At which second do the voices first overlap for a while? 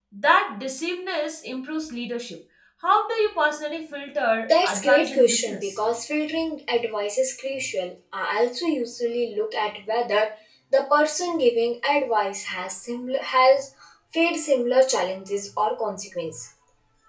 4.5 s

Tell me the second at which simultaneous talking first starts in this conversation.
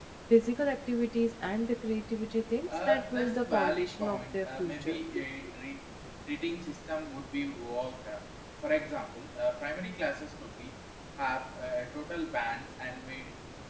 2.7 s

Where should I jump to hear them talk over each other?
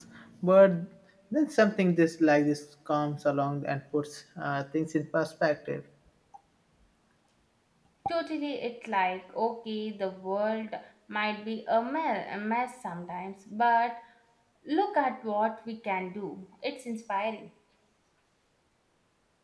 none

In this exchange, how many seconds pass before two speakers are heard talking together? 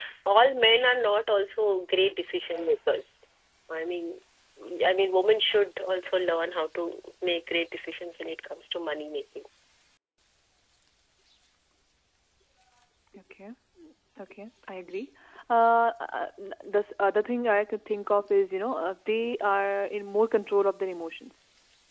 none

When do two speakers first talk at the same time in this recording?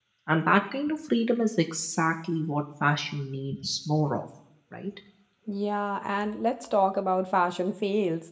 none

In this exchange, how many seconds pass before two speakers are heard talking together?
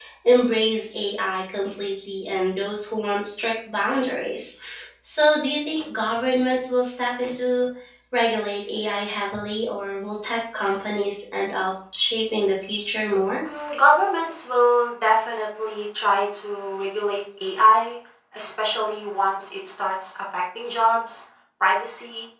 none

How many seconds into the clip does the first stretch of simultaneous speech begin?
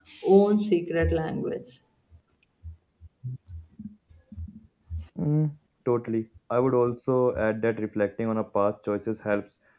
none

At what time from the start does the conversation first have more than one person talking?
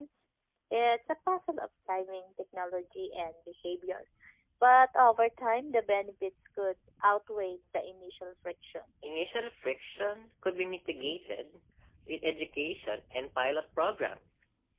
none

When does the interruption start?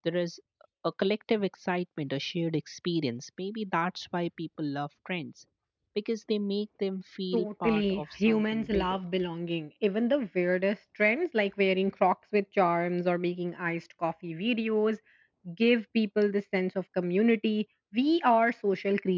7.3 s

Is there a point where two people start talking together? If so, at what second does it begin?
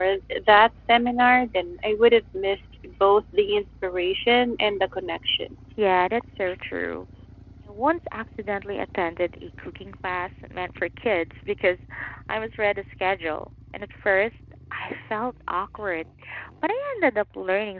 none

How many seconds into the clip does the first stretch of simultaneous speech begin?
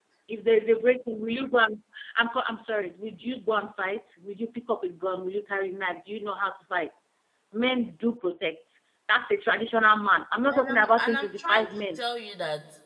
10.5 s

